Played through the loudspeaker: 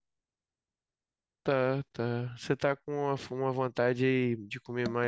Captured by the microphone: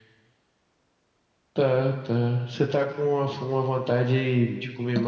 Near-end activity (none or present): none